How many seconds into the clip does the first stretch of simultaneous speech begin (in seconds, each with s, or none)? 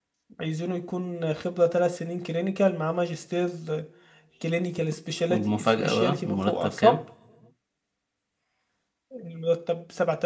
5.3 s